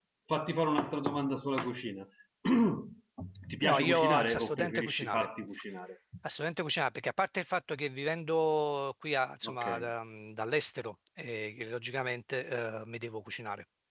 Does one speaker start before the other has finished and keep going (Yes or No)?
Yes